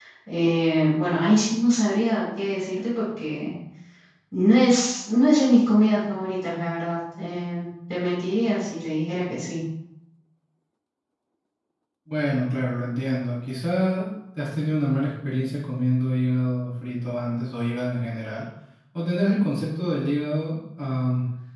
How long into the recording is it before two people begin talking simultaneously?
none

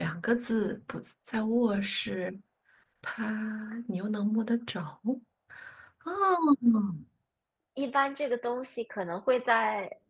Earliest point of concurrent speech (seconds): none

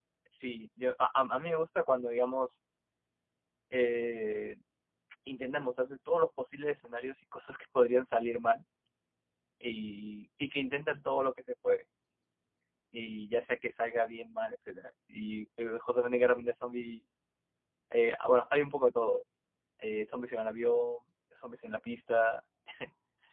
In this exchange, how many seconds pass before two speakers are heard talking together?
none

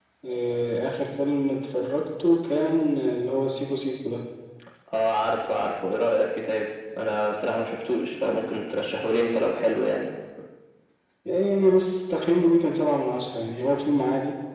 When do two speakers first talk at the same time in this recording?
none

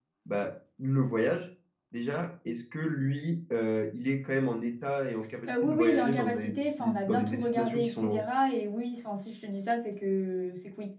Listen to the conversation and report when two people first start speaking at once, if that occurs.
5.5 s

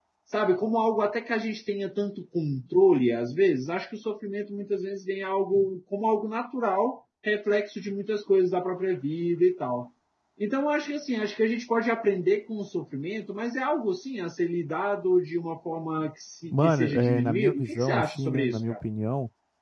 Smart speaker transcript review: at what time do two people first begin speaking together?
16.5 s

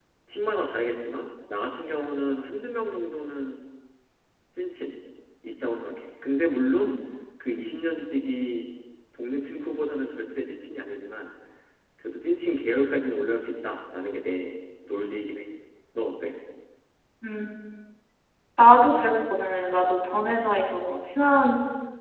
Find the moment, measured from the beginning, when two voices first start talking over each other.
none

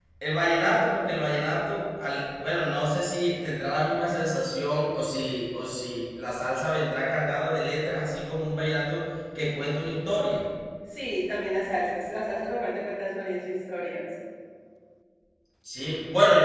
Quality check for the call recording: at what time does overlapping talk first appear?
none

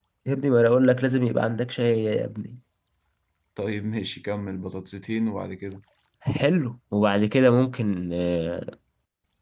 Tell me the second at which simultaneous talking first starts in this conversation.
none

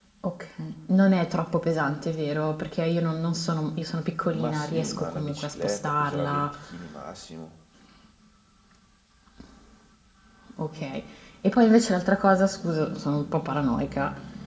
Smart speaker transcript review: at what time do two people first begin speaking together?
4.3 s

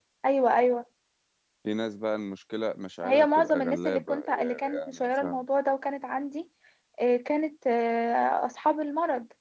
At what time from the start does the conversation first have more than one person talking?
3.0 s

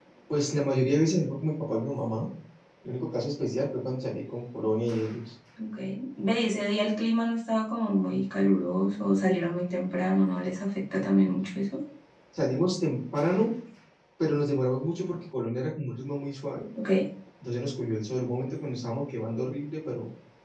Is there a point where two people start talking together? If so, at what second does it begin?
none

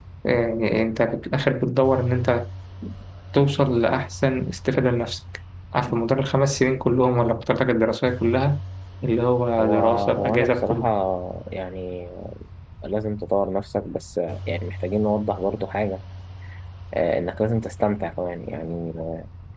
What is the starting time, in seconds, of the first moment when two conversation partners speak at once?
9.6 s

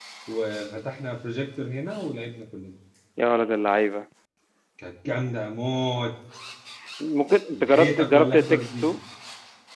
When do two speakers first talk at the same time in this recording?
7.5 s

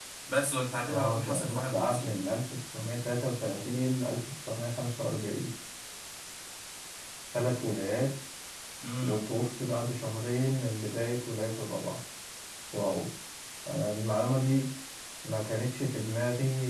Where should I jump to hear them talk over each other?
0.9 s

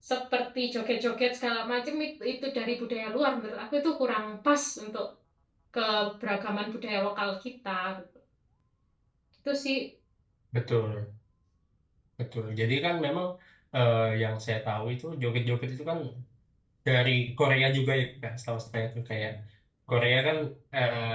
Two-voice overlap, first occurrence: none

